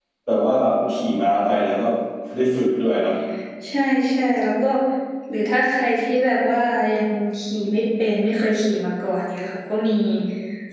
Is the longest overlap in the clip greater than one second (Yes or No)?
No